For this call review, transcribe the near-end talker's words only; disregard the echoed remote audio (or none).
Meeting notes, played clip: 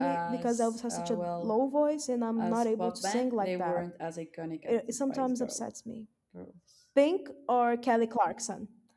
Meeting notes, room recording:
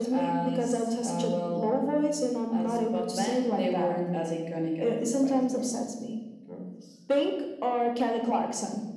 none